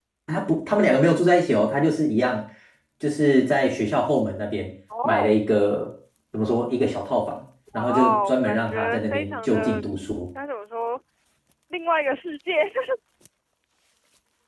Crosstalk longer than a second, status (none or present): present